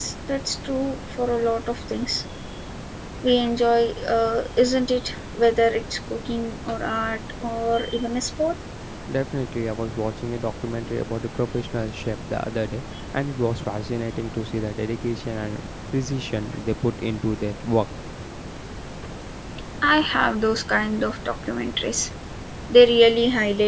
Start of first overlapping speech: none

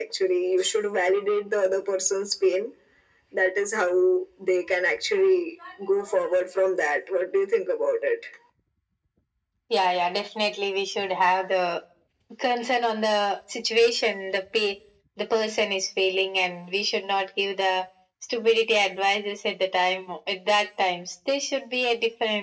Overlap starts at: none

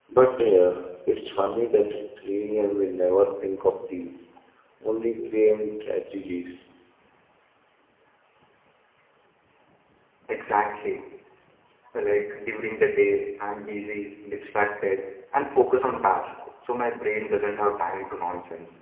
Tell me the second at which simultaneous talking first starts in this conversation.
none

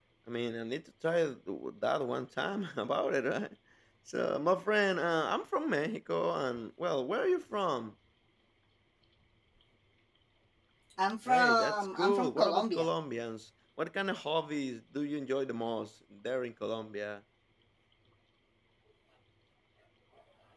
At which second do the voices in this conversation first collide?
11.2 s

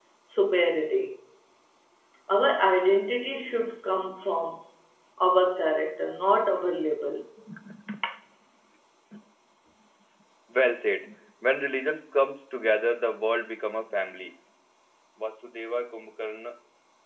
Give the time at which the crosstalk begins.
none

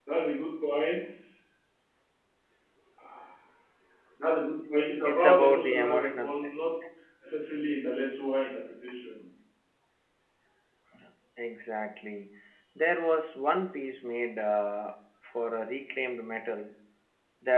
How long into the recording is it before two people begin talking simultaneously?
5.0 s

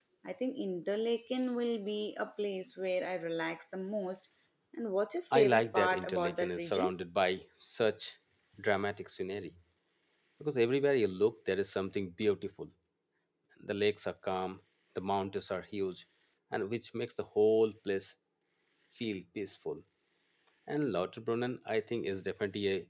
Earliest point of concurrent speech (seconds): 5.3 s

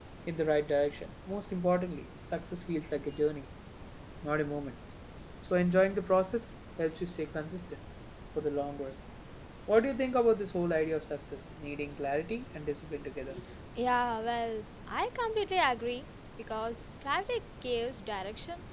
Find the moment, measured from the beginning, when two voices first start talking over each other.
none

